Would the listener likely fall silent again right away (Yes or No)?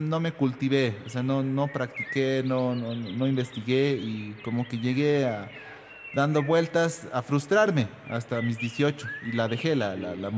Yes